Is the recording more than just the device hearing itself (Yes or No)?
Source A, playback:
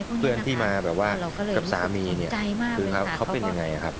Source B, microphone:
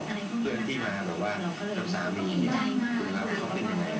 Yes